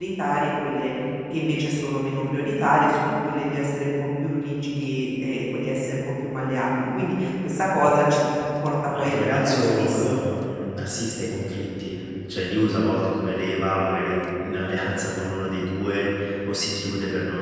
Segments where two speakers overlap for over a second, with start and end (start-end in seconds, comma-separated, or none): 9.0-10.2